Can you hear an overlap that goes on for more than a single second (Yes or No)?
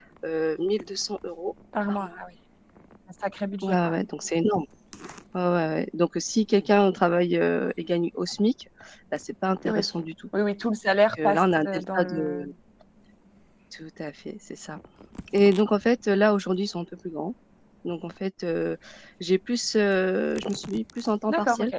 Yes